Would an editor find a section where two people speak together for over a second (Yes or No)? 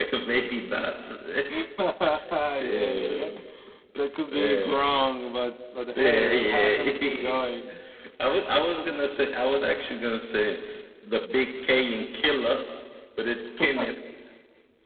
Yes